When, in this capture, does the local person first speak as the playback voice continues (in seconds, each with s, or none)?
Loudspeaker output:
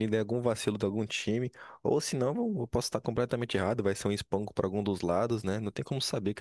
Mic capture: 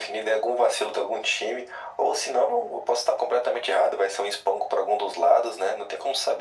none